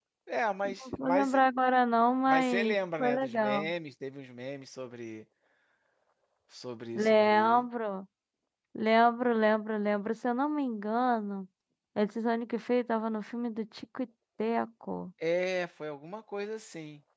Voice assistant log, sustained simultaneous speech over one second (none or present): present